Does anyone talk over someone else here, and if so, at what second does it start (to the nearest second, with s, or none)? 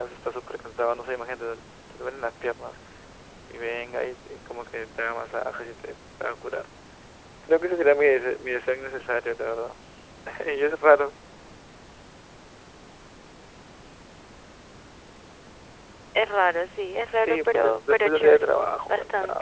17 s